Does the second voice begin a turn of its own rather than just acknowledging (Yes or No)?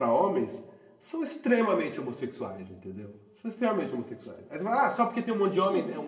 No